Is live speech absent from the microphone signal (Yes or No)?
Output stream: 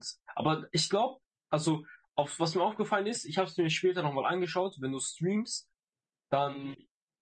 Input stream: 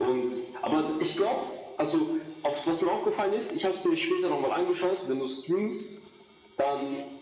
Yes